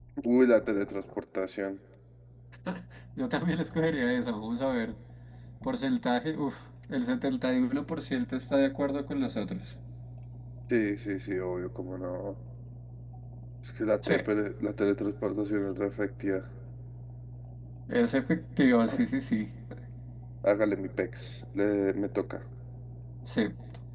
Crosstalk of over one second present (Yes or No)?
No